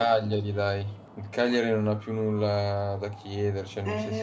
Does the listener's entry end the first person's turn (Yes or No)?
Yes